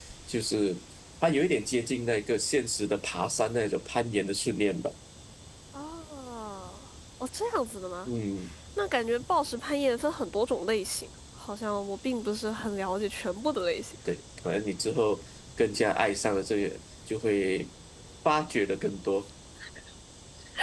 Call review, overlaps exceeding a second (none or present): none